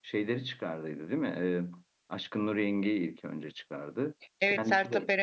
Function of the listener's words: taking over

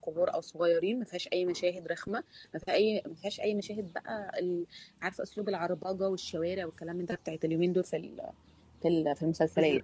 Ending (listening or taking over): taking over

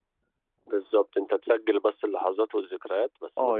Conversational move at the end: taking over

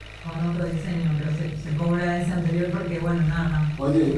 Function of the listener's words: taking over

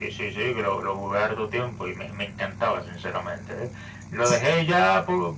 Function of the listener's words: listening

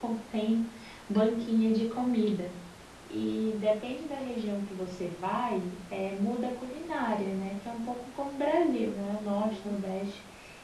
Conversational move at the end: listening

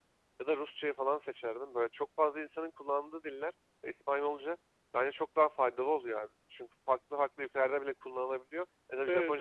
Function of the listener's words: listening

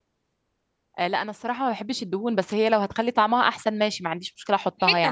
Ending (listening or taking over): taking over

